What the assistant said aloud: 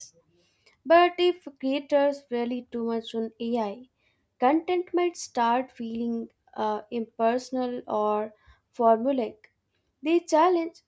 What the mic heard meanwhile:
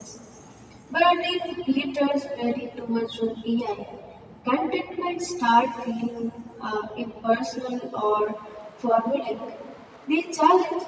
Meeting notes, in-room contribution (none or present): none